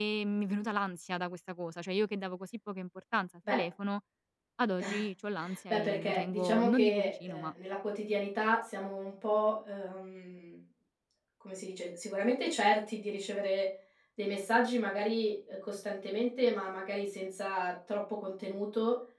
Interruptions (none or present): present